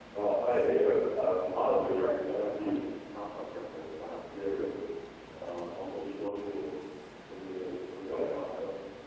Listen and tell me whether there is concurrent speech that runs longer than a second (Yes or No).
Yes